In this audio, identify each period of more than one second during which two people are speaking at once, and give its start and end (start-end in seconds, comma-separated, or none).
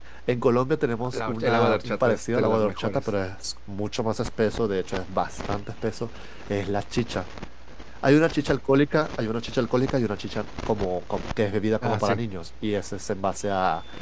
1.1-3.0